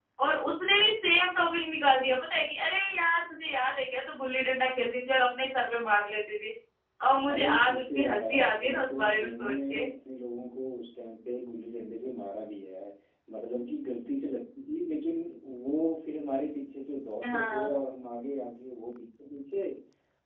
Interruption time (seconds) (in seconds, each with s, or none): 7.3 s